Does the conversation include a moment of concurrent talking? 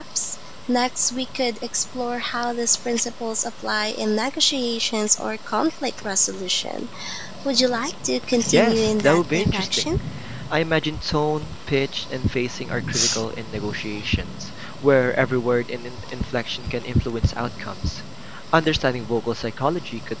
Yes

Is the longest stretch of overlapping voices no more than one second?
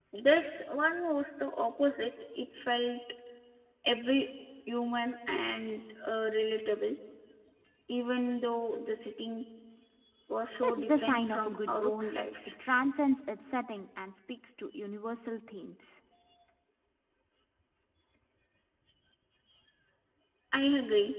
No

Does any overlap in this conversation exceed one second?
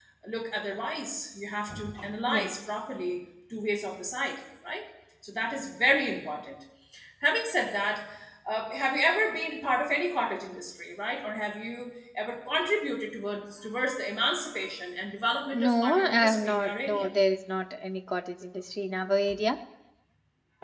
Yes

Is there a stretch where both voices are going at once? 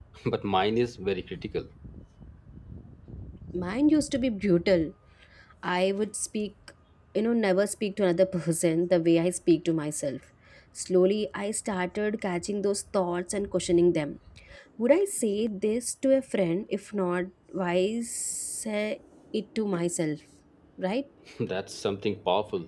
No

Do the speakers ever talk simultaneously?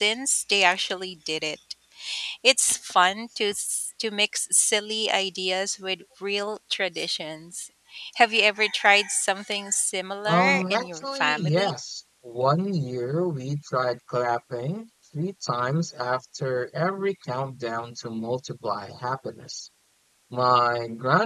Yes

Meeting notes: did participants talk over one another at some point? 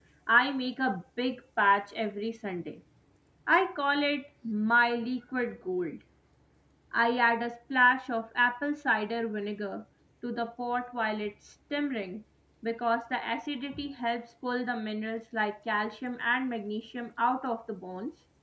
No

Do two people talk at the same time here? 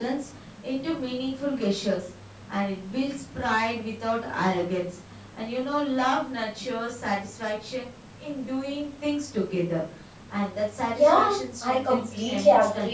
Yes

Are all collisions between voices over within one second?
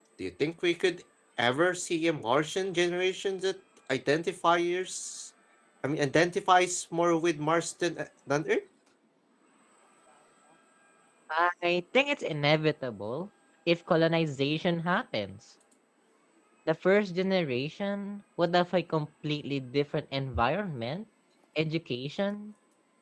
Yes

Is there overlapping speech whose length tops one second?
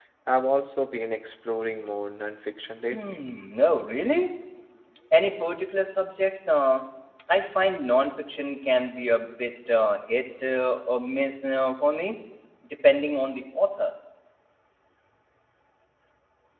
No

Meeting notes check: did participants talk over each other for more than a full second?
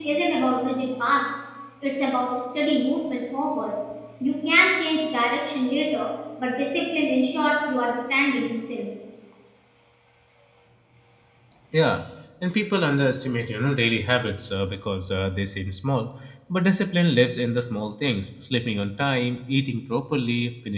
No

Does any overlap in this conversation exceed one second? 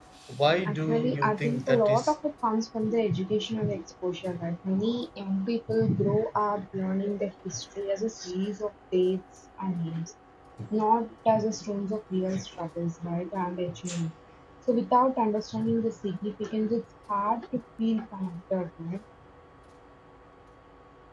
Yes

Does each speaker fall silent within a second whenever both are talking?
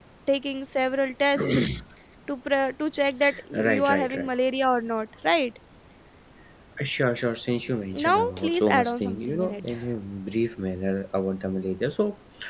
No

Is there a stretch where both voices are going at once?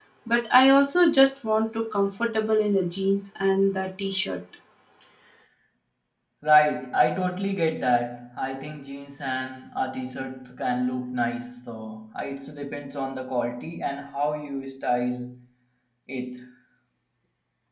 No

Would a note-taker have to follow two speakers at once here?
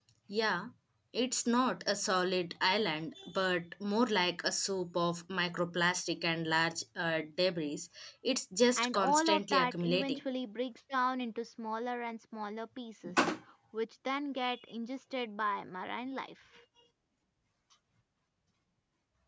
Yes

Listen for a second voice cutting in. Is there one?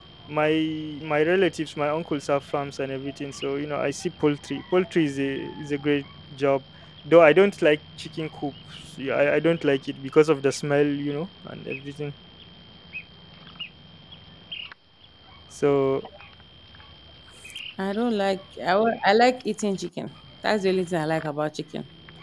No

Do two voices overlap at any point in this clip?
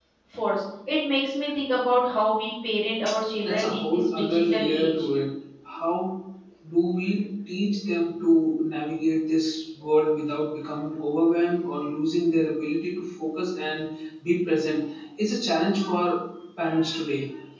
Yes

